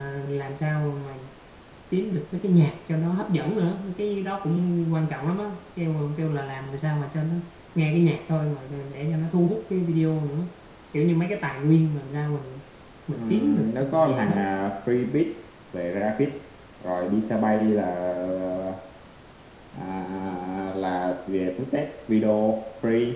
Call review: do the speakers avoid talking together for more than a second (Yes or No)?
No